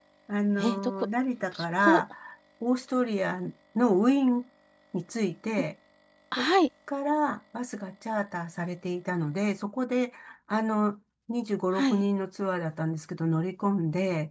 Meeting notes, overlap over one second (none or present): none